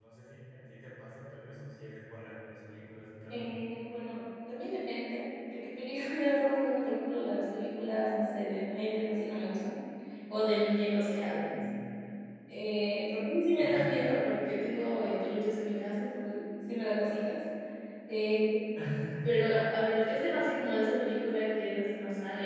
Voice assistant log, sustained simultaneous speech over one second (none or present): none